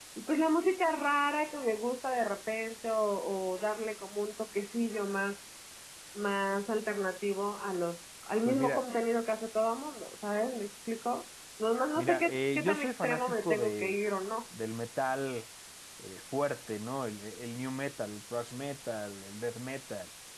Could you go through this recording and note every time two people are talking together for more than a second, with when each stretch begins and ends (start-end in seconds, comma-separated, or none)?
12.0-14.0